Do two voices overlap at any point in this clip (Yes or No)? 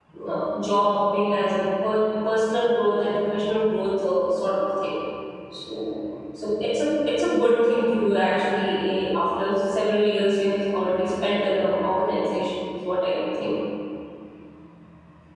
No